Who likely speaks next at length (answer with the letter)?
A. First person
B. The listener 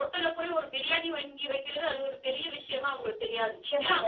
B